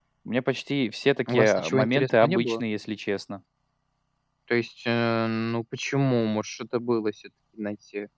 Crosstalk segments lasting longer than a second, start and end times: 1.3-2.6

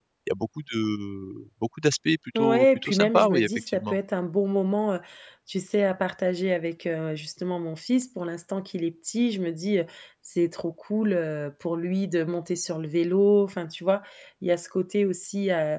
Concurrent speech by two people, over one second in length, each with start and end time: 2.4-4.0

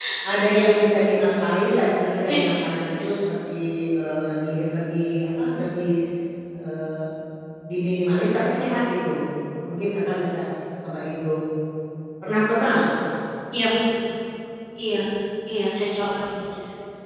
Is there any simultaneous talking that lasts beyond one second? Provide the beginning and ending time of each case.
none

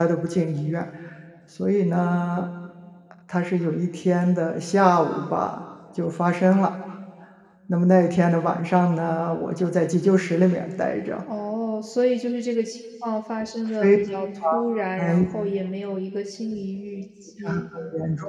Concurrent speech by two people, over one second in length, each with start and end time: none

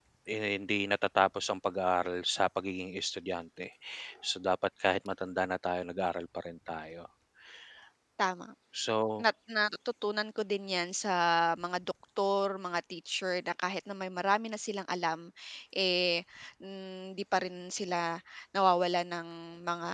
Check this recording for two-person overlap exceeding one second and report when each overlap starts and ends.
none

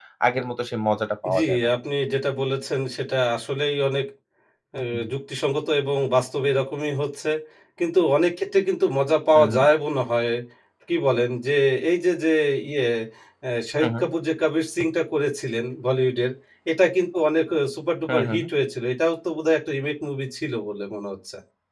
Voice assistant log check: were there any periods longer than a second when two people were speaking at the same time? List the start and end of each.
none

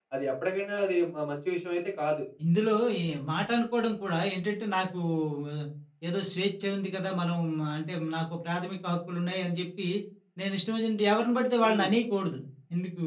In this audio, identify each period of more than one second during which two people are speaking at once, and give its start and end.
none

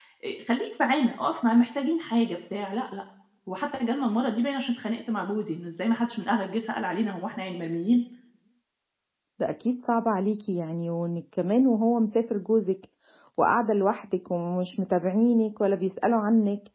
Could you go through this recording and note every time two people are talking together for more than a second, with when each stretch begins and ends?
none

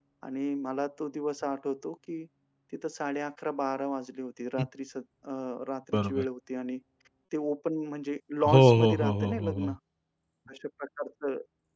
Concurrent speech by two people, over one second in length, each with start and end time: 8.5-9.7

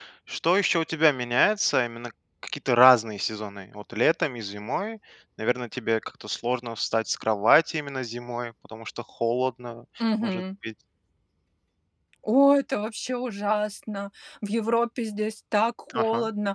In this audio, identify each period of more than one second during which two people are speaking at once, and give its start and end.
none

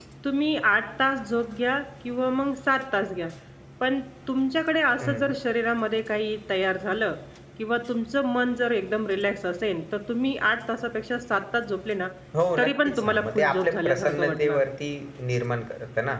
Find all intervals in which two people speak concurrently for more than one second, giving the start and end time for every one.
12.6-14.6

